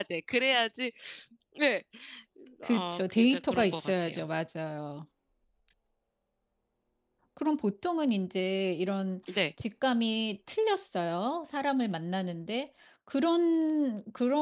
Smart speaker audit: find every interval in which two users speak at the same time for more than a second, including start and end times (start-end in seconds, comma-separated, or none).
2.6-4.2